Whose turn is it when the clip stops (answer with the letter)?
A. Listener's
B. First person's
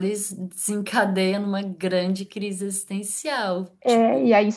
A